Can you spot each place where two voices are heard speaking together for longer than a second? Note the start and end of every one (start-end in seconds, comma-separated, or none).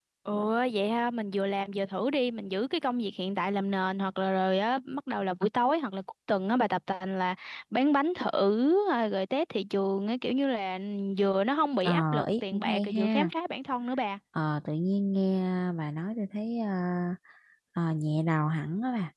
11.8-13.3